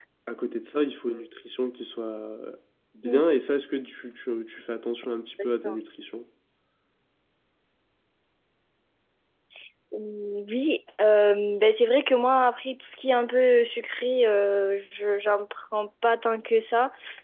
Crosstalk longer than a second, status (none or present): none